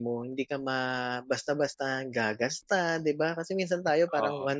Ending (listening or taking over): listening